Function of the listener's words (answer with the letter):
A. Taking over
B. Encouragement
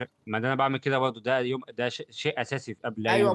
A